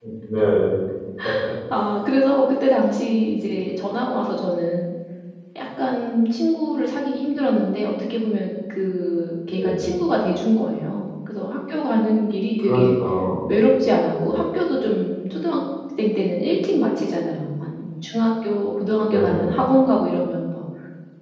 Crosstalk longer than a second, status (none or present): none